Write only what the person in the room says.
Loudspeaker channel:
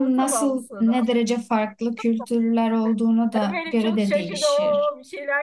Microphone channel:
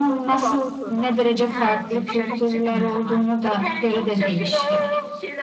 Ha, dışarı çıkmıyorlar.

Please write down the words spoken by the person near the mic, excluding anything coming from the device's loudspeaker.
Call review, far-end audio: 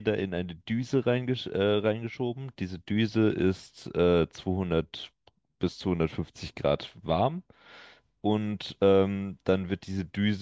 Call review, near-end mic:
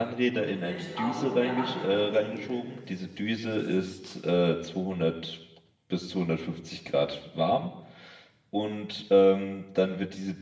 und mit welchen Aromen er angepriesen wird,

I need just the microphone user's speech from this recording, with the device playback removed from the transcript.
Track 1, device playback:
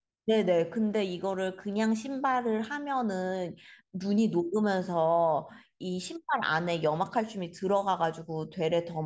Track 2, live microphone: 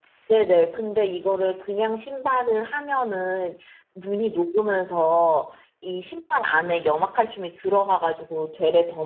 none

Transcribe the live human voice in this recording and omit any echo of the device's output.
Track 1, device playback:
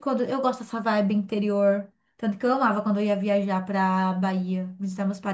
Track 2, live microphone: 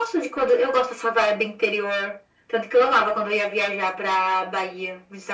none

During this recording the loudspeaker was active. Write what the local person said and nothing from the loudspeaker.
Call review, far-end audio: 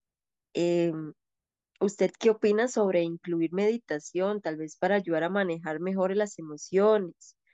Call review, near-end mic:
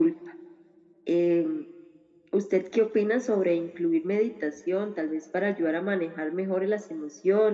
none

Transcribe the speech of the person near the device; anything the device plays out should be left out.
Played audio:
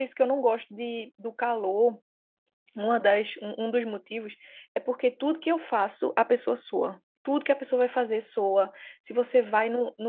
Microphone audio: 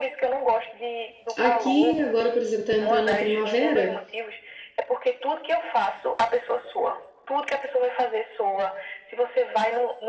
aqui agora, por exemplo, está entrando na primavera.

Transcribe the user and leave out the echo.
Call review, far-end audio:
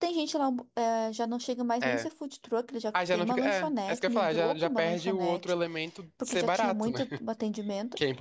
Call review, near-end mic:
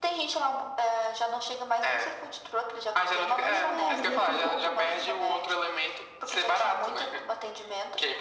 não era. E eu tive que,

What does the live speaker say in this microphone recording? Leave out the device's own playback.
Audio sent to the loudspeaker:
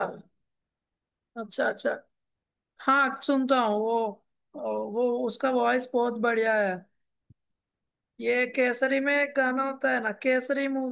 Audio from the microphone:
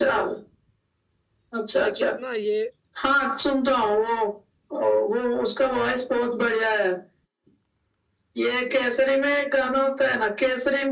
लाइक यार ना ये

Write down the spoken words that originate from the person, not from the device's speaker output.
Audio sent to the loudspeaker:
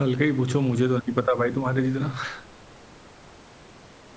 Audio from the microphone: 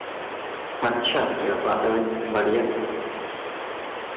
अच्छा क्या बात है भाई बढ़िया

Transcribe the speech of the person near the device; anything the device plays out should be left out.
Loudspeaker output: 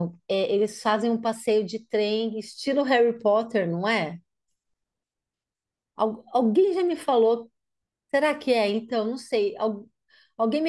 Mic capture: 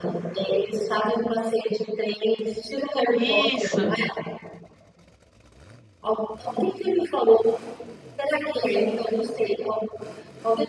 Isso.

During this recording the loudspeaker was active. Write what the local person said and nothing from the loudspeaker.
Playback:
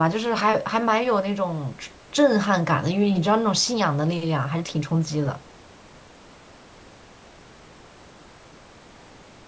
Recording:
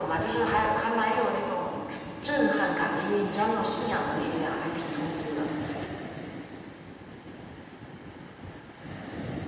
none

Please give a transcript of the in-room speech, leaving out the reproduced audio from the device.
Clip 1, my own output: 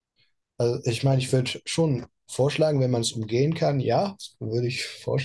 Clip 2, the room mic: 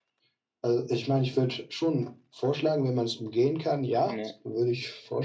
Ja,

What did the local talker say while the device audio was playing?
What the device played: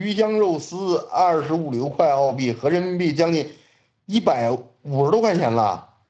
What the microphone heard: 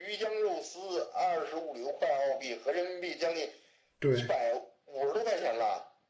对，

